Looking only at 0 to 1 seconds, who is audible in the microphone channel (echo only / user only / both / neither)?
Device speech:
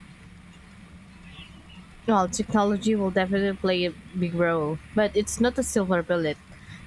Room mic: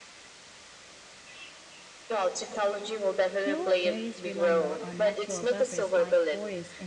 neither